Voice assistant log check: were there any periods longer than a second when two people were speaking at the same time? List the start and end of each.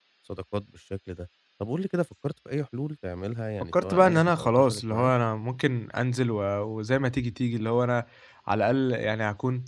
3.7-5.1

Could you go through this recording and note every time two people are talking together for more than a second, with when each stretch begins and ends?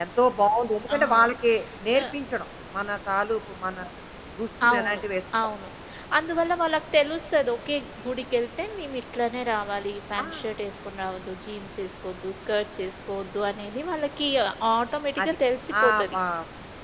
none

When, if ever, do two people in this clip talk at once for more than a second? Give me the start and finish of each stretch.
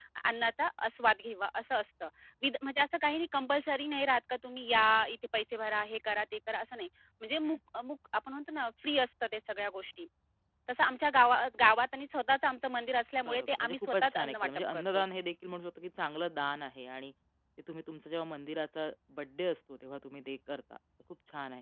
13.2-15.0

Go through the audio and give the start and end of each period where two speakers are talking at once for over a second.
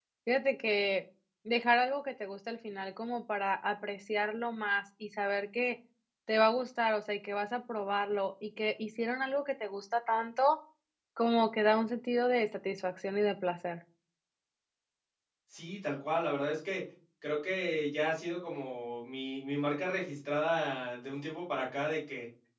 none

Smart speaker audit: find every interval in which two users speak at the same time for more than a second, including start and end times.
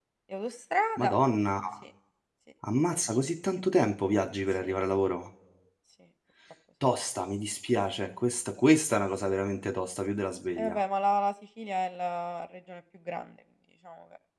none

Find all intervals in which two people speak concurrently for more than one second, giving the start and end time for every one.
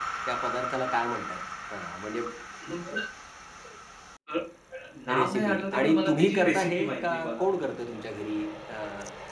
5.2-7.4

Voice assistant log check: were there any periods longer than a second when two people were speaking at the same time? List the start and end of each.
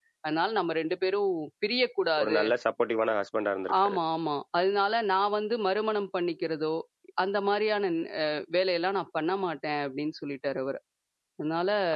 none

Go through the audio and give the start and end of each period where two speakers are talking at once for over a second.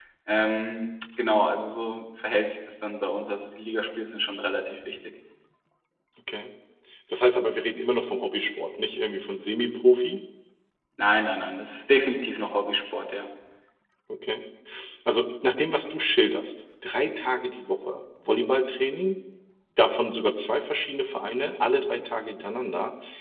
none

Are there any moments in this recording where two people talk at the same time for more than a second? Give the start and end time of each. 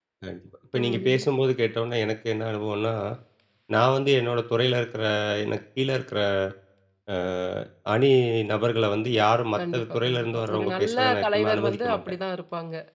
9.6-12.0

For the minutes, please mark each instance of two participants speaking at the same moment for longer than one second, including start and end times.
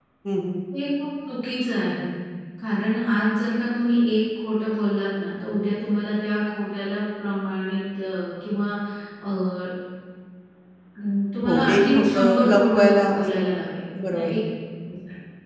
11.4-13.5

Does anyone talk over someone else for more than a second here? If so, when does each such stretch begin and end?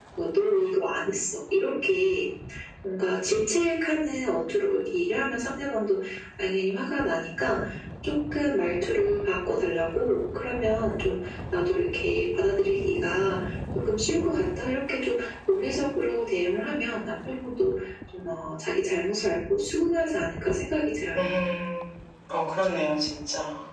none

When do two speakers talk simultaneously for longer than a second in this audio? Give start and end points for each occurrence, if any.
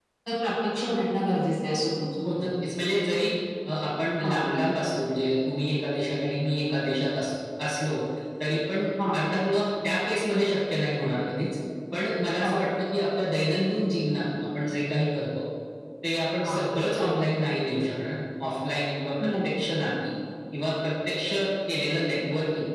none

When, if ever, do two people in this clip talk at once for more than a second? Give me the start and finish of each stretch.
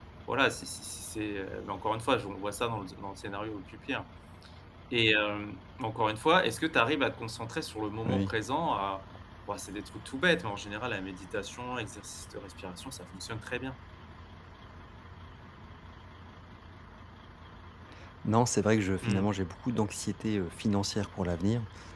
none

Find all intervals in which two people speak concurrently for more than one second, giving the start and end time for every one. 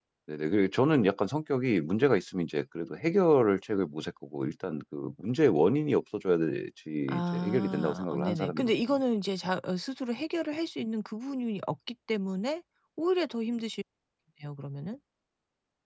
7.2-9.0

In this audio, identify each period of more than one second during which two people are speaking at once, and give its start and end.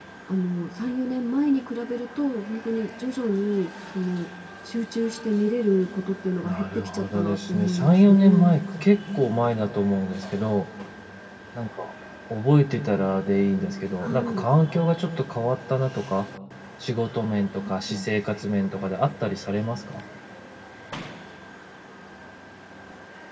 6.4-8.4

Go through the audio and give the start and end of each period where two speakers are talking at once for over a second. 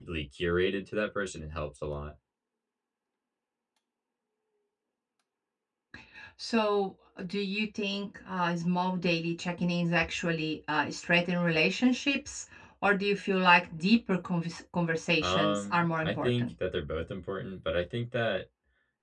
15.2-16.5

